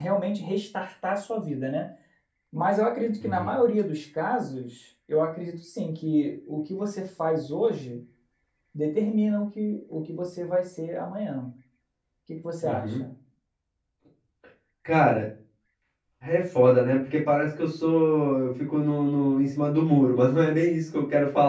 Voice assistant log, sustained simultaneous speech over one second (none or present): none